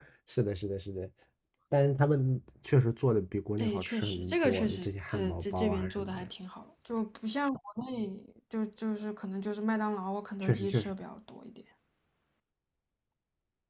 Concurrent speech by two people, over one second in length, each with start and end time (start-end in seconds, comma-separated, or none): 3.6-6.3